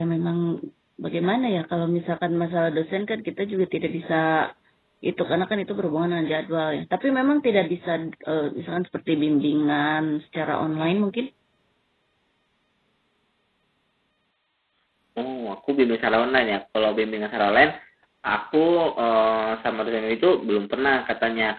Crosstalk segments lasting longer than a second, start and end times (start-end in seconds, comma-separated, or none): none